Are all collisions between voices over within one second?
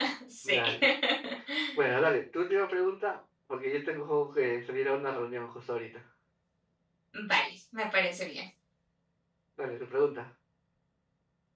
Yes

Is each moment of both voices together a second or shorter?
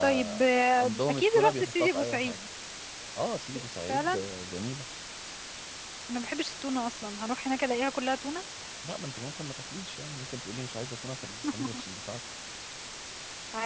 No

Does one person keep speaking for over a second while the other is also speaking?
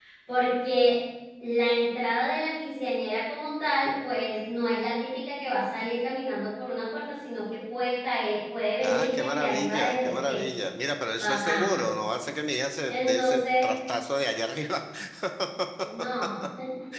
Yes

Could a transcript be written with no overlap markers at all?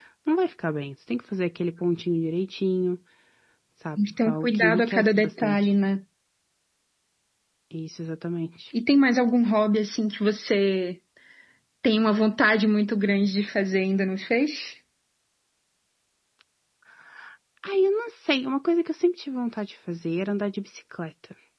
No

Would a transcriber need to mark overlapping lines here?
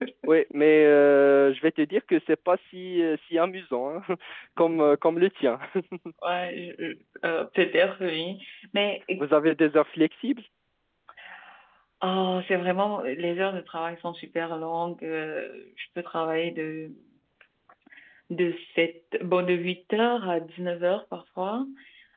No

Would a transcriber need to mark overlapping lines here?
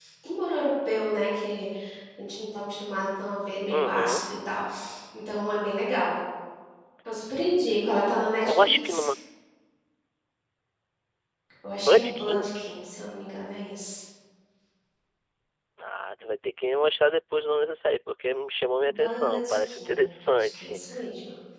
Yes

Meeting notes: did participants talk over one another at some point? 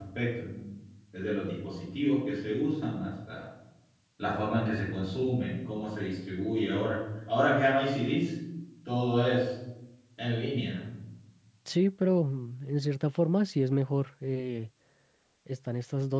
No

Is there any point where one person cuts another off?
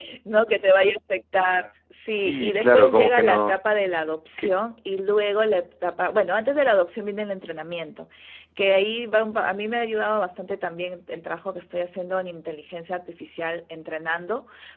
Yes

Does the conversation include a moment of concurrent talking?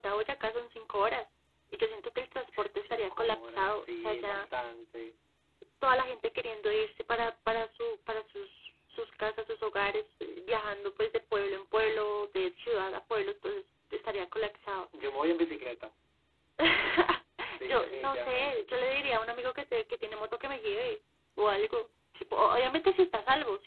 Yes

